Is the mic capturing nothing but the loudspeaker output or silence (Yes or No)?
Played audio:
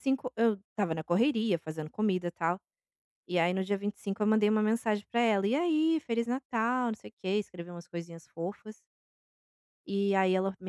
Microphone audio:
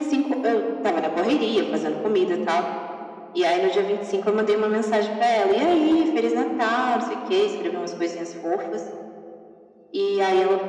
Yes